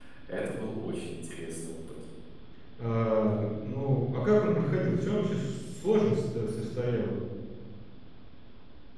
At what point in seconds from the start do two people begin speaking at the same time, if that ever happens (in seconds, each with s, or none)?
none